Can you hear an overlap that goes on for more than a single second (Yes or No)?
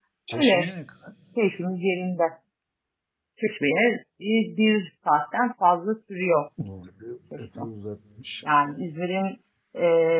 No